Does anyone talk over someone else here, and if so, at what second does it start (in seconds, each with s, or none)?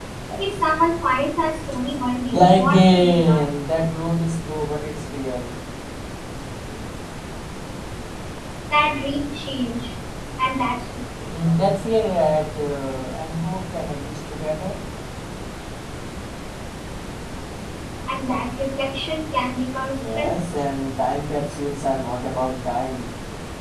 2.3 s